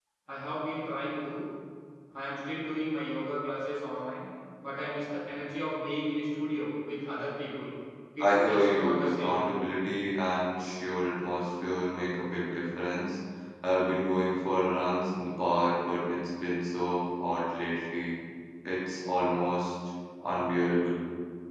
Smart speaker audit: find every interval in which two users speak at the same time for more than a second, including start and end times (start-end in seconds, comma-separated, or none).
8.2-9.4